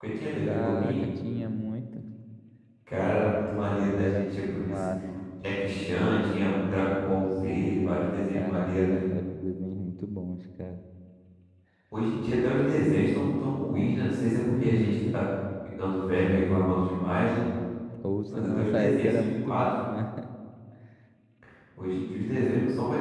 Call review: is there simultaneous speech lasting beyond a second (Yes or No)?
Yes